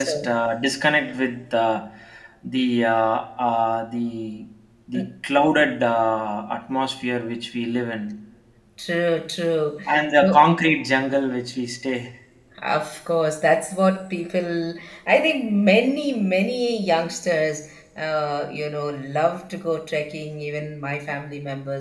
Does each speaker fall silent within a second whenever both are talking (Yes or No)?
Yes